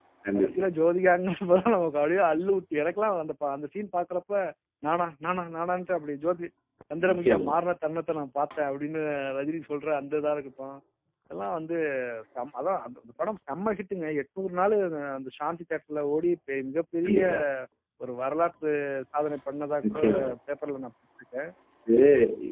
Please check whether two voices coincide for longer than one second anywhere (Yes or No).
No